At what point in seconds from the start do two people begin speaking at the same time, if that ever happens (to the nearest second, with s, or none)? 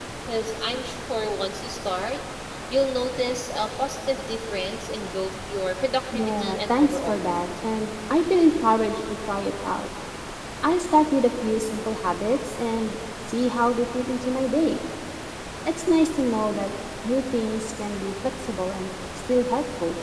6 s